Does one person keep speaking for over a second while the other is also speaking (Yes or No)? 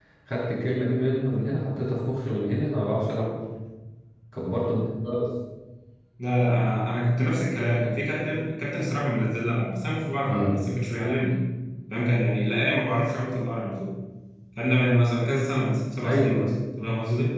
No